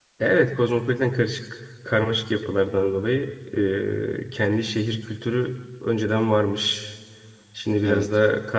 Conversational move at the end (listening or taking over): listening